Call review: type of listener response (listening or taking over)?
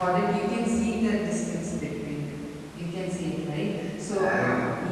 listening